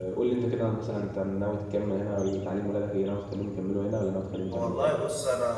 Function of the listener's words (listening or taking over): taking over